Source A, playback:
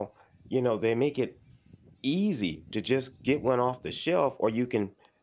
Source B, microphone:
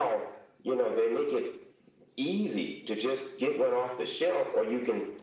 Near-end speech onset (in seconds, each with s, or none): none